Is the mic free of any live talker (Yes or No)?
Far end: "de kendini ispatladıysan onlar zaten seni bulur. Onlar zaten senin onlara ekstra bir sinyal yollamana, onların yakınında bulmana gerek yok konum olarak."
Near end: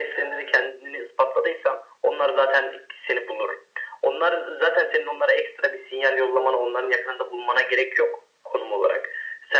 Yes